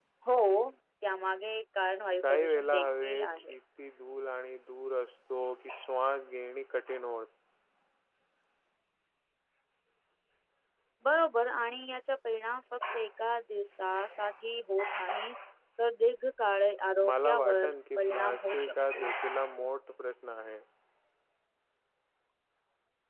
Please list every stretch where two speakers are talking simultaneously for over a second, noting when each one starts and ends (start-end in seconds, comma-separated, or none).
2.3-3.5, 17.0-19.0